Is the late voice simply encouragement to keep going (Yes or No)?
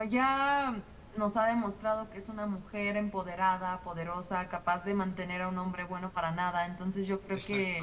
Yes